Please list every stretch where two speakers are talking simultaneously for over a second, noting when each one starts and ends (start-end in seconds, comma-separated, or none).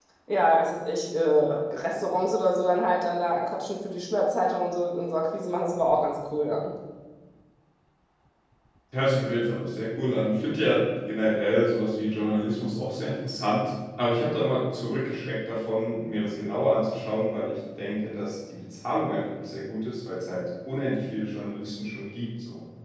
none